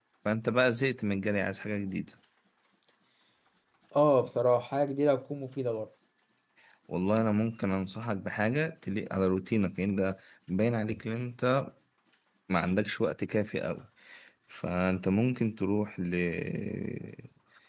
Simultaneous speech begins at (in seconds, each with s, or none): none